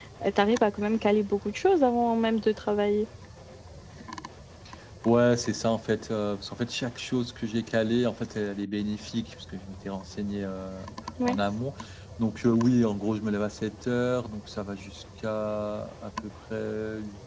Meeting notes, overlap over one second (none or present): none